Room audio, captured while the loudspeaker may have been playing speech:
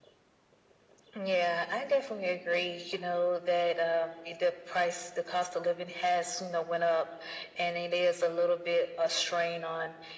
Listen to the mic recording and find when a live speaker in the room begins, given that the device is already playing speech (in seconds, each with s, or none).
none